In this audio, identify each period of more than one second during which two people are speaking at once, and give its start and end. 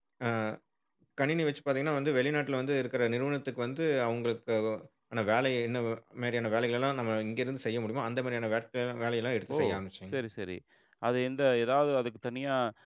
none

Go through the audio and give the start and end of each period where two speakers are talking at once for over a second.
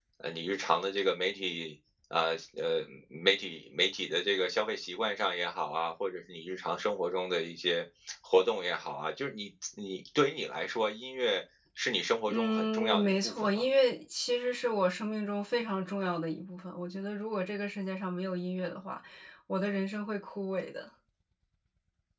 12.3-13.7

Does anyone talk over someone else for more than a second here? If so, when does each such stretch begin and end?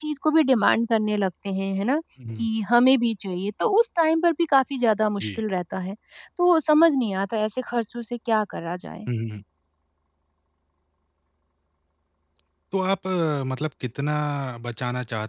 none

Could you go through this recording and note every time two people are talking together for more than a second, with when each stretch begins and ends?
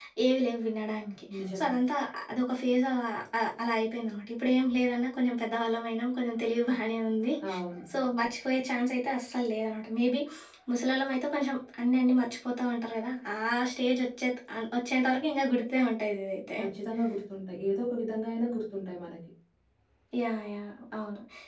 none

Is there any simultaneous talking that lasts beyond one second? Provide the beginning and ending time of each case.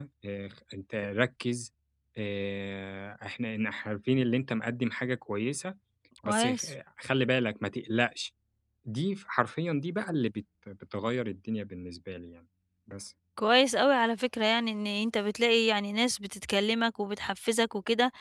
none

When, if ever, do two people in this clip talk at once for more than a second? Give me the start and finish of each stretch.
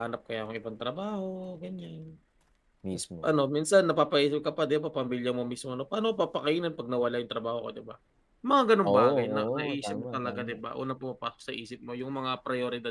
8.8-10.6

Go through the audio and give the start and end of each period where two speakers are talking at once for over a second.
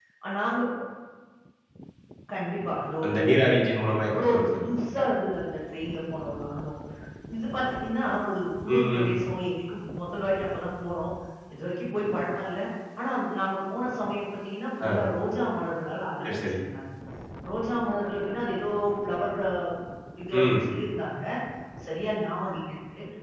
none

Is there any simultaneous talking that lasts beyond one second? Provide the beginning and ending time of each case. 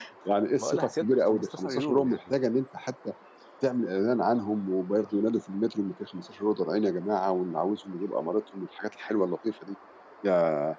0.6-2.2

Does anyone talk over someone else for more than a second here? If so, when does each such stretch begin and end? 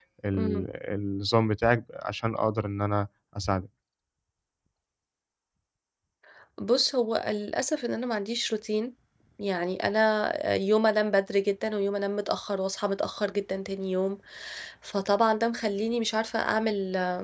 none

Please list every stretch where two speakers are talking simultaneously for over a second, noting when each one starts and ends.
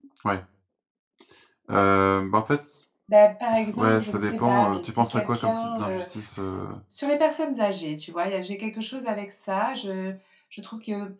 3.5-6.1

